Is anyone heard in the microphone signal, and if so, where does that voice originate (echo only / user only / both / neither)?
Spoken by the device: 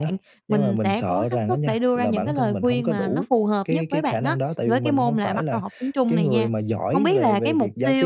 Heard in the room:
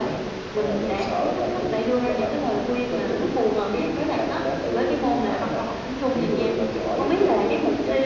echo only